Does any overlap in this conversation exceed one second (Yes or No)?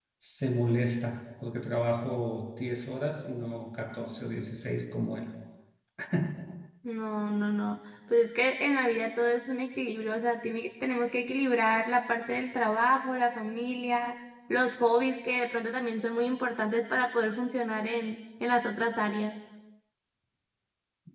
No